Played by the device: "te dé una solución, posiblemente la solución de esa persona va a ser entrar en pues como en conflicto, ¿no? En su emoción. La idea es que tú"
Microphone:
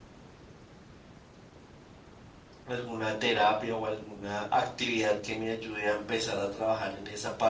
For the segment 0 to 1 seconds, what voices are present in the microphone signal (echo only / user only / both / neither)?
neither